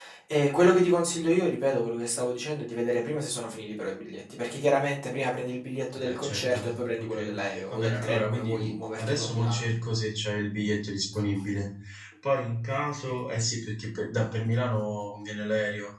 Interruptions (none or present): present